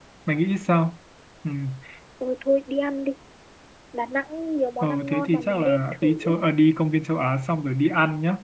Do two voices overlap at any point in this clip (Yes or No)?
Yes